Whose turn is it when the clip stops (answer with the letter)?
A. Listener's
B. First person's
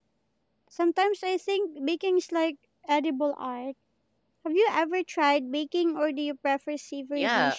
A